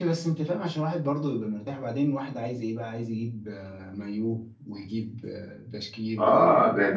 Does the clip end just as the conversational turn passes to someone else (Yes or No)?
Yes